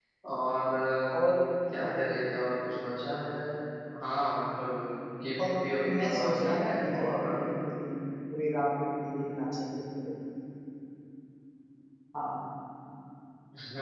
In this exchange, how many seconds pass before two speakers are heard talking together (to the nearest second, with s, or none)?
6 s